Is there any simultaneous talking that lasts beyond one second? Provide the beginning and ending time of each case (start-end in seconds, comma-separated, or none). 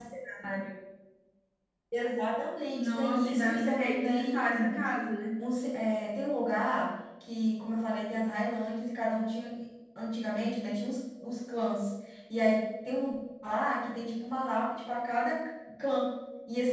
2.7-4.8